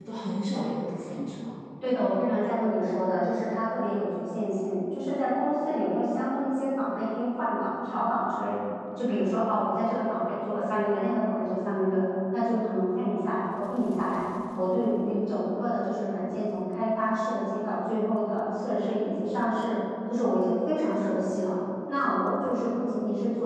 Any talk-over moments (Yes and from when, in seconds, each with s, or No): No